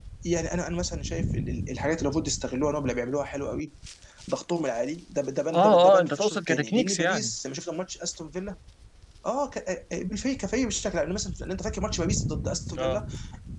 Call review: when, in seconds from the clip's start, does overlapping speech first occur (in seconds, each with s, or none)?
5.5 s